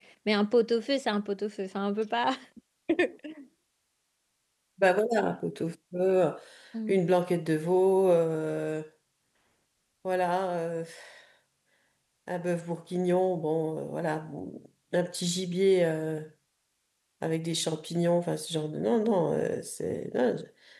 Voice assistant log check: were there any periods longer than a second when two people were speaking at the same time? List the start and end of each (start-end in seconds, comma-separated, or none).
none